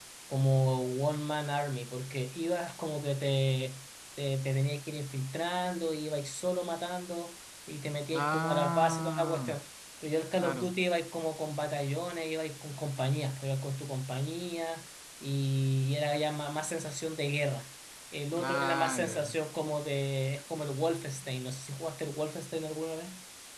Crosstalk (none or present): present